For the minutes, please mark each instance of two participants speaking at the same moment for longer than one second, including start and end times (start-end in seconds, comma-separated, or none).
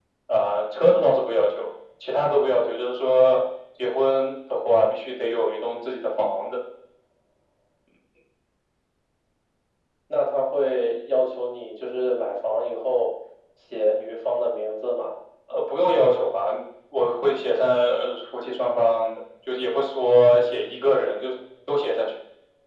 none